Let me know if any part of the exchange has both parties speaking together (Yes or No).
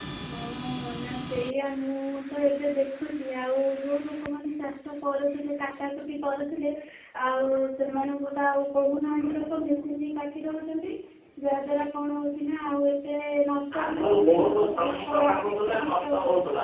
Yes